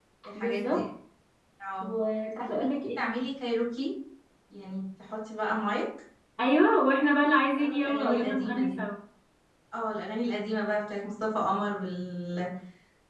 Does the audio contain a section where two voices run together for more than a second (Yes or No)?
Yes